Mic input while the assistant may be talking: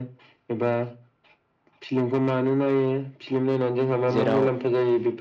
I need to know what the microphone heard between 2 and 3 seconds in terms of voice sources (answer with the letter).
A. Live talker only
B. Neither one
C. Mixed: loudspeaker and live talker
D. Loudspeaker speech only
D